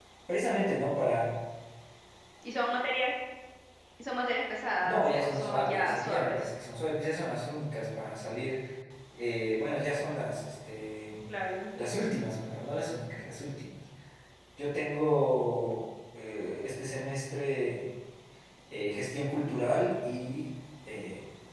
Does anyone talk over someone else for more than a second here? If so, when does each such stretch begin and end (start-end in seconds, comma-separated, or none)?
4.8-6.5